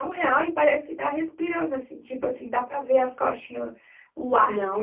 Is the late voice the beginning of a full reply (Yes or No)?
No